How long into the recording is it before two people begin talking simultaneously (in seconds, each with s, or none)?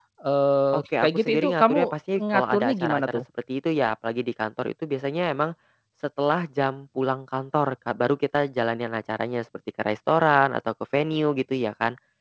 0.7 s